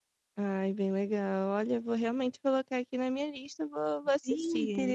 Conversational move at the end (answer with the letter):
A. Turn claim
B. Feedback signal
A